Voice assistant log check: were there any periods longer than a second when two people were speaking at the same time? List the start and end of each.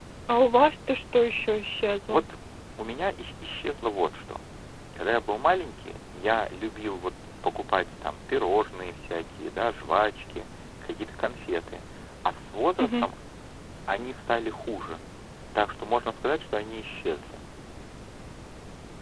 none

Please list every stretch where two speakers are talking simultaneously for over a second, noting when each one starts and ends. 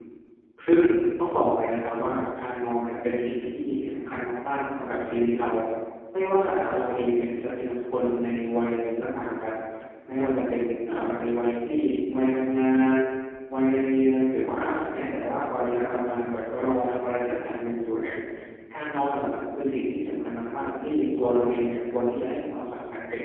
none

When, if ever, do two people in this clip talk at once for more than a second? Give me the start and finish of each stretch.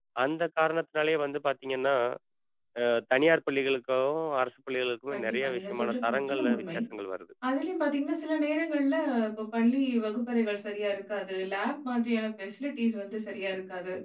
5.1-6.8

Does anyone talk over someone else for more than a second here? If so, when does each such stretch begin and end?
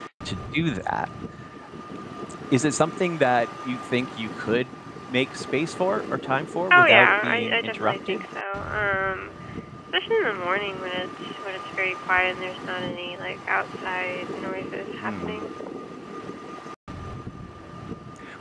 6.7-8.2

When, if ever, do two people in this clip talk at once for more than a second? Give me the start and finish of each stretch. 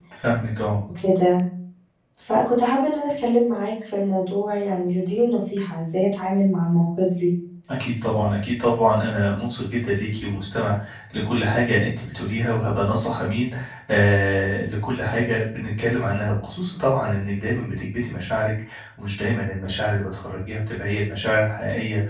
none

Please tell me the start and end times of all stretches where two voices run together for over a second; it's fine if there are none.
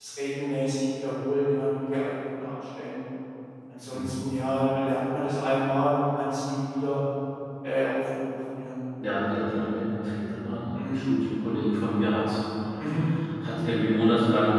none

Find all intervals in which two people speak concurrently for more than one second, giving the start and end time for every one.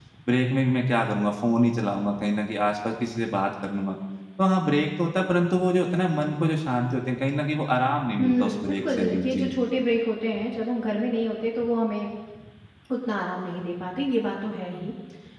8.2-9.5

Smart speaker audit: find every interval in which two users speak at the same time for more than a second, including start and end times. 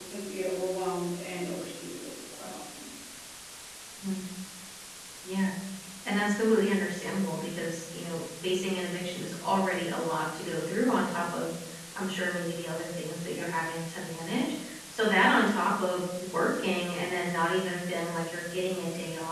none

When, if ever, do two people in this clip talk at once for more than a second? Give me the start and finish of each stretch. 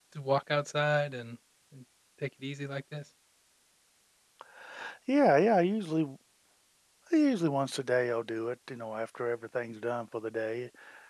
none

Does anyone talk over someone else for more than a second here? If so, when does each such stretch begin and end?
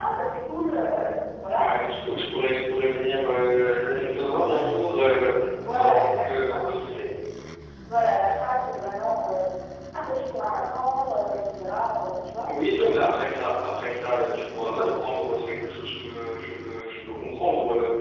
5.6-7.1

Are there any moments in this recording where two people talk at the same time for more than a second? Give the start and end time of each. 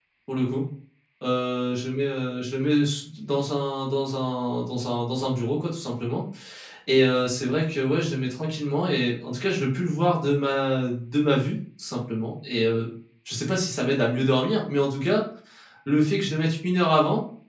none

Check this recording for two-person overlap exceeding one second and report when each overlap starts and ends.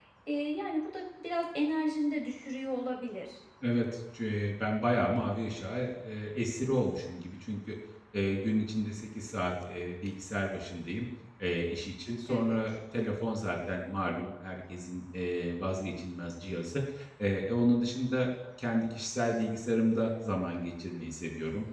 none

